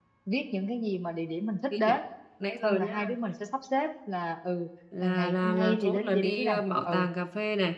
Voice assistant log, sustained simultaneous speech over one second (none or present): present